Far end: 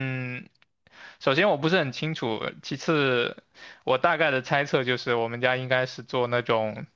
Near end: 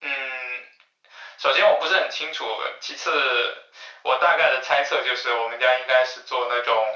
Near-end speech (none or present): none